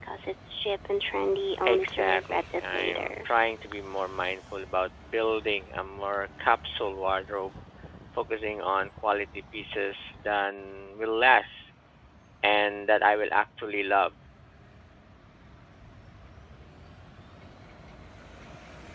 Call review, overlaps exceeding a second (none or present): present